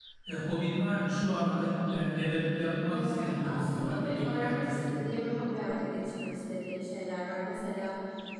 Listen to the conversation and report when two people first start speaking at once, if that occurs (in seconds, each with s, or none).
2.9 s